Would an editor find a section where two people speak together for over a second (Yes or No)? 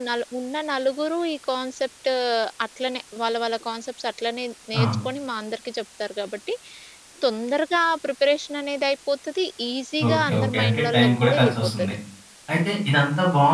Yes